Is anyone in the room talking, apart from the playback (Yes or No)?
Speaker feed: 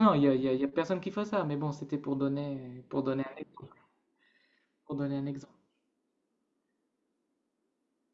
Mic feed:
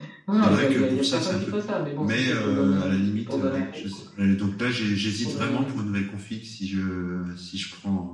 Yes